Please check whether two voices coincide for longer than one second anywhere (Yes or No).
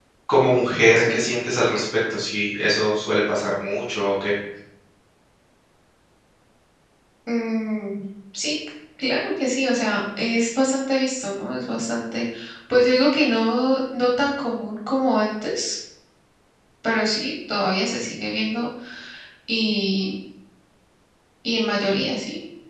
No